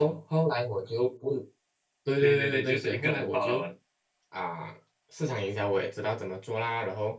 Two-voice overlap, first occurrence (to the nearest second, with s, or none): 2 s